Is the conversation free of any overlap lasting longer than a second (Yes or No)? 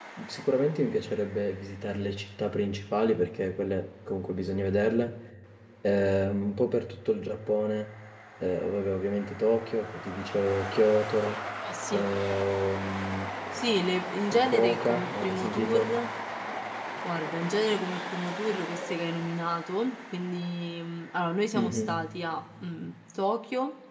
No